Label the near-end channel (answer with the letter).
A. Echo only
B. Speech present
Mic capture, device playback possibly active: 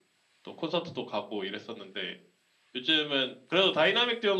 A